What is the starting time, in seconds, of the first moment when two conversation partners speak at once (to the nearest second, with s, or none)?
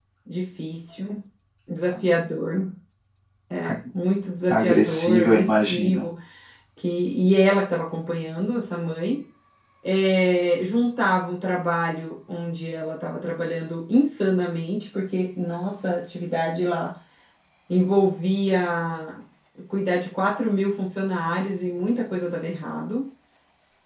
5 s